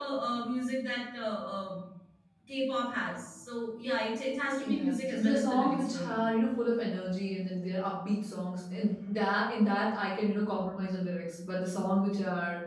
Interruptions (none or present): present